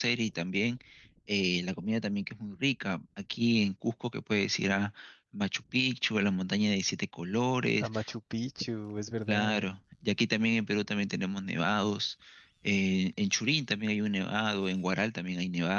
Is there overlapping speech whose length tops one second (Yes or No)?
No